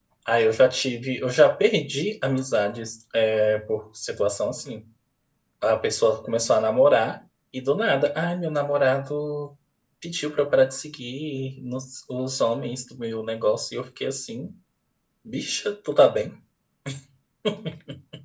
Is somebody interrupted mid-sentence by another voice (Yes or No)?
No